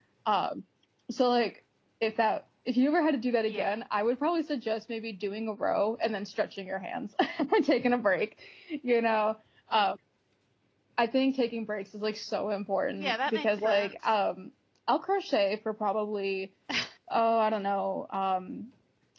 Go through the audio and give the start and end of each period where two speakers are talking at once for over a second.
12.9-14.1

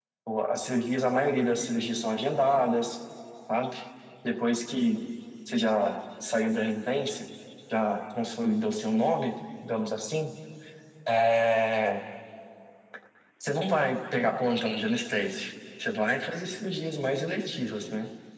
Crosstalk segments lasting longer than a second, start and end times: none

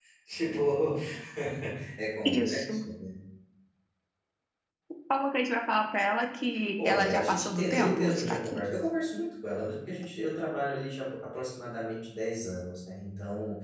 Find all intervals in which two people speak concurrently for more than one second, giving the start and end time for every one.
6.8-8.6

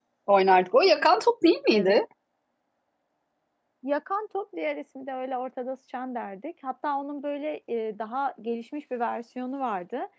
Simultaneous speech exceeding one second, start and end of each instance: none

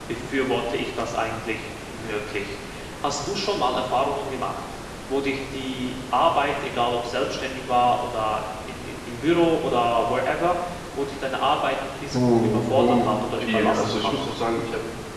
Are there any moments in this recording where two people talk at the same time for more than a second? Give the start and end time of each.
12.1-14.1

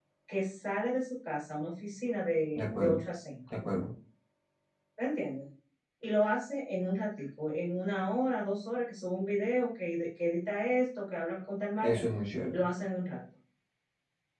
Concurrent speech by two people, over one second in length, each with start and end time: none

